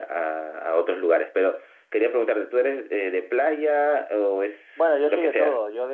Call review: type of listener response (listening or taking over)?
taking over